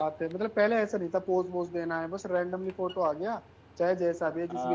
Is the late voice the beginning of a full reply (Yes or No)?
Yes